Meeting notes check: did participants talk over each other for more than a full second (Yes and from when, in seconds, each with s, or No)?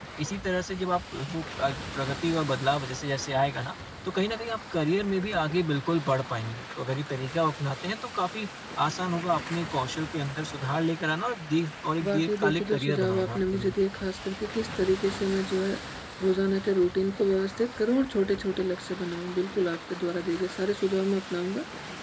Yes, from 12.0 s